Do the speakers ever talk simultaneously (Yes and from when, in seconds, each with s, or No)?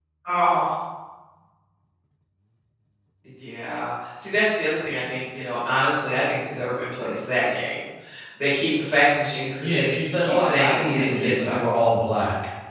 Yes, from 9.6 s